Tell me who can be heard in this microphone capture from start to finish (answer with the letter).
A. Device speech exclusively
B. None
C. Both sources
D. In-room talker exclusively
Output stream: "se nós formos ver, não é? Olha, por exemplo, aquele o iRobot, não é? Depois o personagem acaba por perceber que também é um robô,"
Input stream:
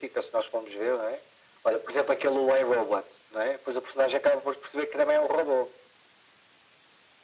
A